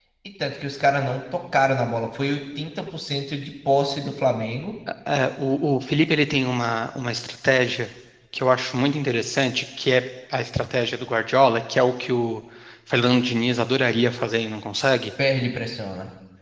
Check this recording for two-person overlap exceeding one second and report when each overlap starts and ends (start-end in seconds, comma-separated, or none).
none